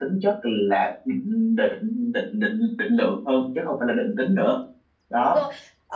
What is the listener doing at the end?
taking over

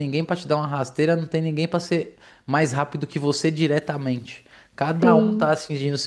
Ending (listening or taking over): listening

